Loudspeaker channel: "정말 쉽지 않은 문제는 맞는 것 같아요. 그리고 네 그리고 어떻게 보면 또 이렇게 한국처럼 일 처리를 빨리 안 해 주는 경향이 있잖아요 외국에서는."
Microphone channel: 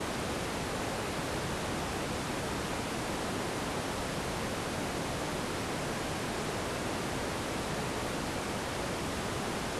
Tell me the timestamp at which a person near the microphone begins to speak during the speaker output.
none

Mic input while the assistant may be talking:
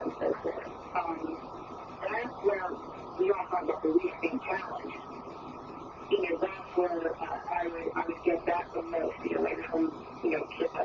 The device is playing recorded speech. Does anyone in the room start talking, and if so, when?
none

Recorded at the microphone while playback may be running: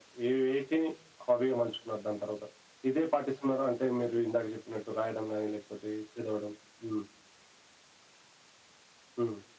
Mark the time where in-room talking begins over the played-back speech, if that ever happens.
none

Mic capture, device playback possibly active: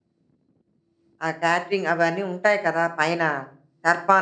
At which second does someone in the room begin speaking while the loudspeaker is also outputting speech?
1.2 s

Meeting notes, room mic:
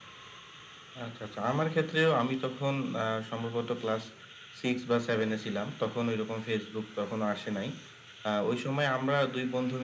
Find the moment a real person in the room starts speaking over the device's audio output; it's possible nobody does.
none

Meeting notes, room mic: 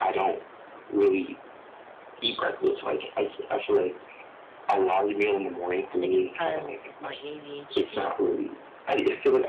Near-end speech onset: 5.9 s

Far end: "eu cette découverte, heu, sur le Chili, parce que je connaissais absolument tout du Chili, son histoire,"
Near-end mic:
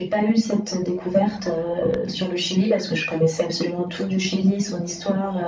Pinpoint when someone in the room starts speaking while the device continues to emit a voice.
none

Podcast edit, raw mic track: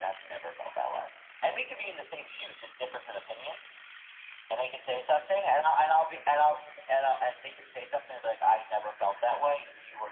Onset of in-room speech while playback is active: none

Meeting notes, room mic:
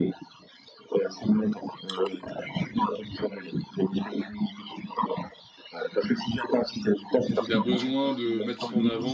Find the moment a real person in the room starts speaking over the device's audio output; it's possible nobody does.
7.3 s

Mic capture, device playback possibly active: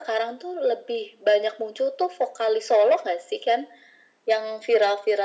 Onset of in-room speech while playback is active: none

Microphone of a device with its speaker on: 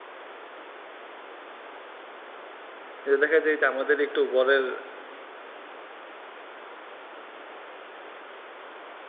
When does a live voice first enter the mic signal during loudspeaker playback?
3.1 s

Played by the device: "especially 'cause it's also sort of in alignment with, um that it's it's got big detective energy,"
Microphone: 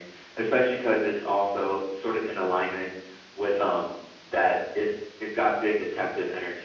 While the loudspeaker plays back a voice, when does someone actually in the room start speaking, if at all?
none

